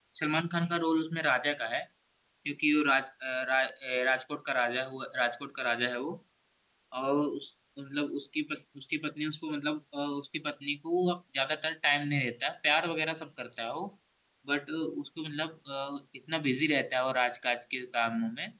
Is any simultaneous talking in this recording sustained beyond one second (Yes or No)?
No